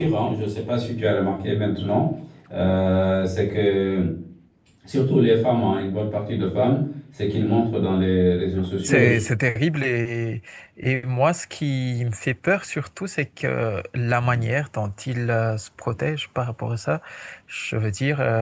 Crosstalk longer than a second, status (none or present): none